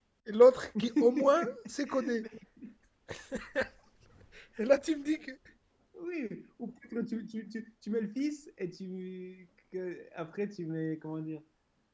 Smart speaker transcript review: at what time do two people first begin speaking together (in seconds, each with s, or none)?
0.8 s